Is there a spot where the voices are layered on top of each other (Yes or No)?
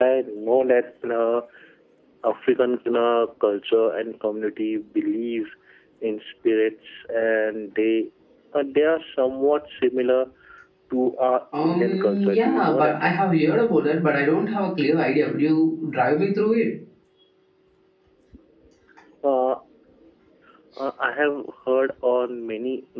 Yes